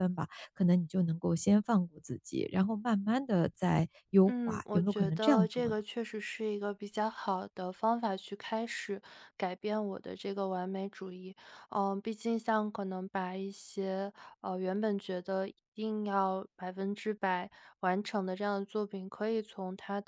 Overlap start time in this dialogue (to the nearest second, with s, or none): 4 s